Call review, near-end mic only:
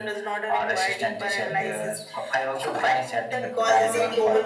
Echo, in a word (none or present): present